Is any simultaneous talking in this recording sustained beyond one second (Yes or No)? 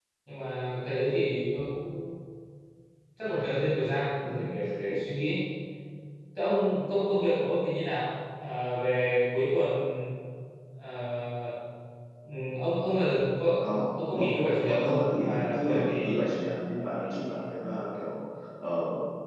Yes